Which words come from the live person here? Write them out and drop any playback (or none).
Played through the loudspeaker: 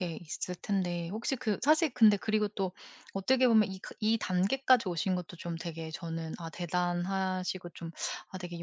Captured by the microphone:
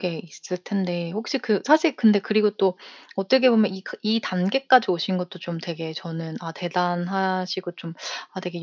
none